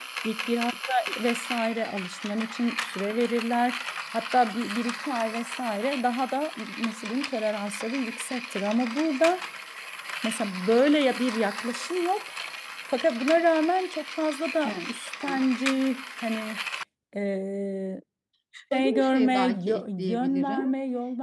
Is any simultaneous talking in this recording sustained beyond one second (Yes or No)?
Yes